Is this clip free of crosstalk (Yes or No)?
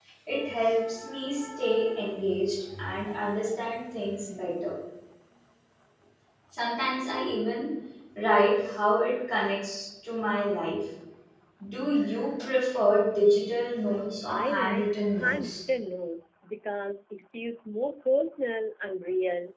No